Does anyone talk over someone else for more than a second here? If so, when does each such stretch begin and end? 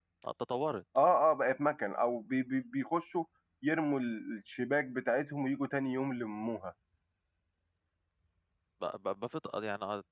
none

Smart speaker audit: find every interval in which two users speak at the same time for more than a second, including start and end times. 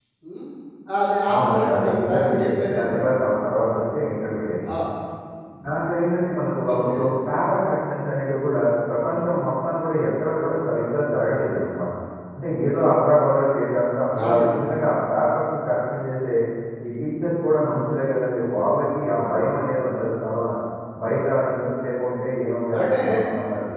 1.3-2.8

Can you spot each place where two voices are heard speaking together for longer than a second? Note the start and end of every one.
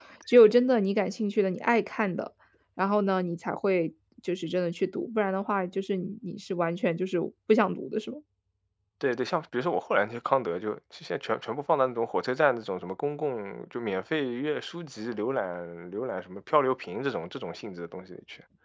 none

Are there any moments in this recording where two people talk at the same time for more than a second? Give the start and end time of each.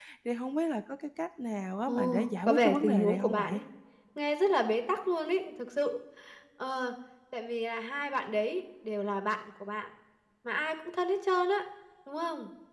1.9-3.5

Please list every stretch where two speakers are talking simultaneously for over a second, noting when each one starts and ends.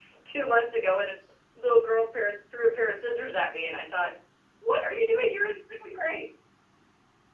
none

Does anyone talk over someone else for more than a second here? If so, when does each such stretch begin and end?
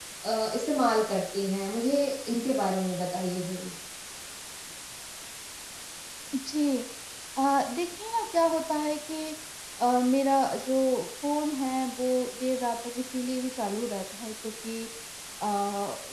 none

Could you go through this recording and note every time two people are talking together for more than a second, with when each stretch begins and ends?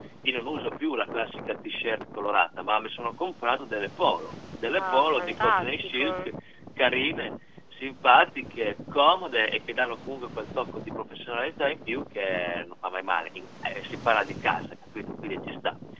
4.8-6.1

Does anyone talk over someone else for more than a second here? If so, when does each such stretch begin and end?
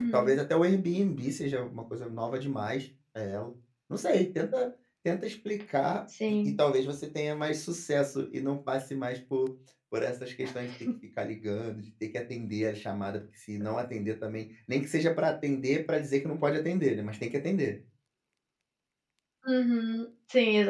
none

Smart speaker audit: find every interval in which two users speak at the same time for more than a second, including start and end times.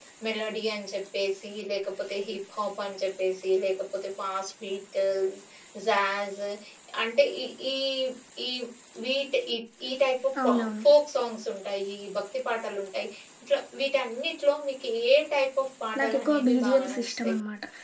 16.0-17.3

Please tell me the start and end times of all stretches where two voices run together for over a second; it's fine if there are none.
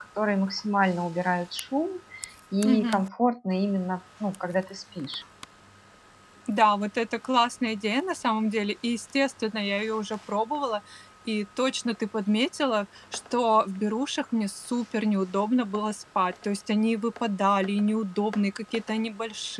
none

